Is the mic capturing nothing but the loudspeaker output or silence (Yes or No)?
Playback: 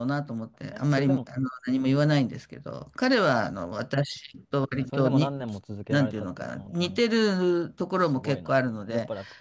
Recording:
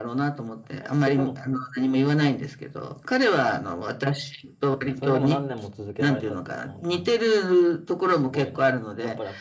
Yes